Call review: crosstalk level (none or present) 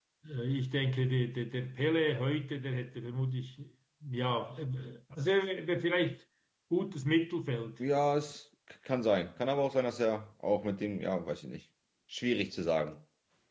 none